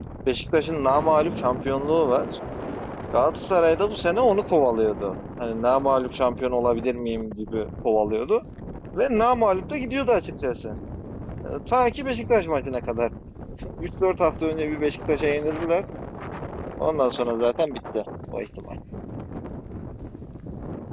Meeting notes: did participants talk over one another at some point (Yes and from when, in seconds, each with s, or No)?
No